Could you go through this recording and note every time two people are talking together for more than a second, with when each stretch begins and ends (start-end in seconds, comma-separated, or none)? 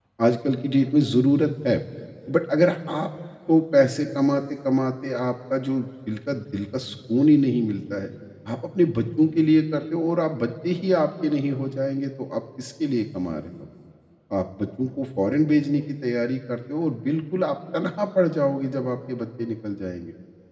none